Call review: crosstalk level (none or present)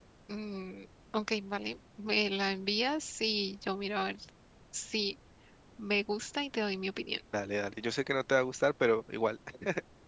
none